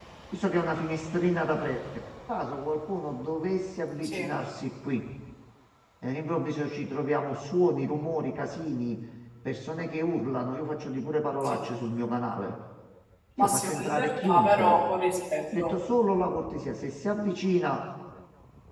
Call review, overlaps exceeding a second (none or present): present